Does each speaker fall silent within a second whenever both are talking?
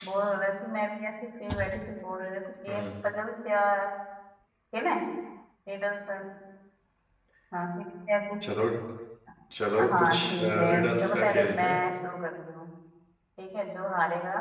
No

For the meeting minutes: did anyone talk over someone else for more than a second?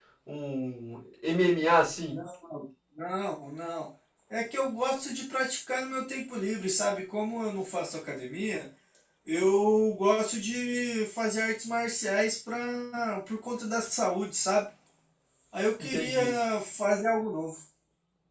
No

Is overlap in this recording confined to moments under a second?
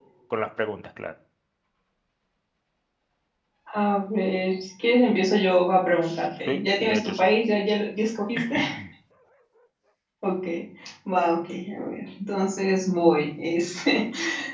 No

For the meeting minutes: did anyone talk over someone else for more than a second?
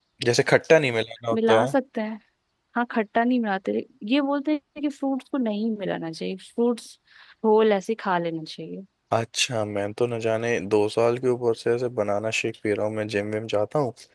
No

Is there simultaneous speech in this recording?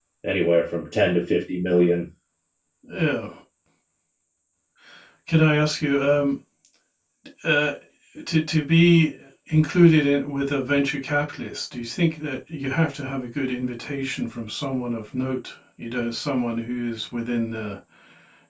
No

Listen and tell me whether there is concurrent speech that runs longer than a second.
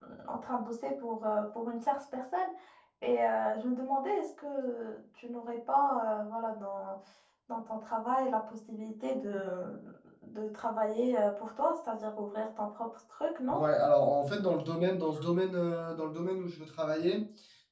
No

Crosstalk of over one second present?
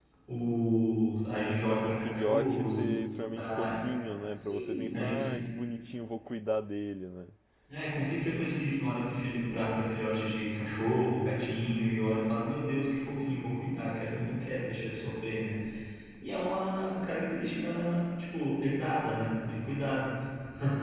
Yes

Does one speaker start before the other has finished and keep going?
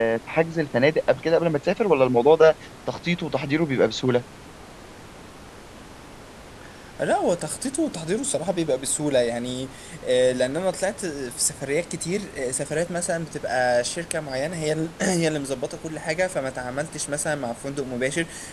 No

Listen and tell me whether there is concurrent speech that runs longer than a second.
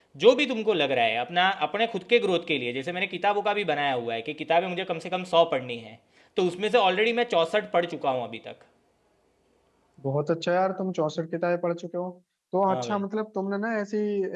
No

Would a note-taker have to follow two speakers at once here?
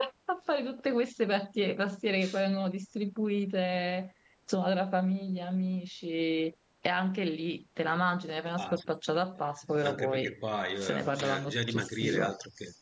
Yes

